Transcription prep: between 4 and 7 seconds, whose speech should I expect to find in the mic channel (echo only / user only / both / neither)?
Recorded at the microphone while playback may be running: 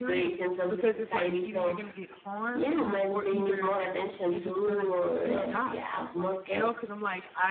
both